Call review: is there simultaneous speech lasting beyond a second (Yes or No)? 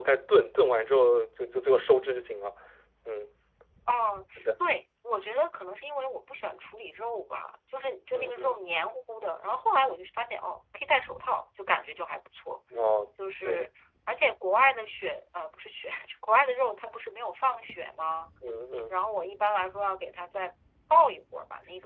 No